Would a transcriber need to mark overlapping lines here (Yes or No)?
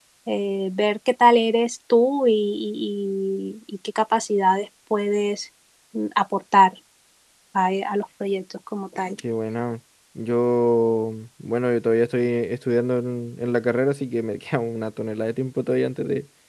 No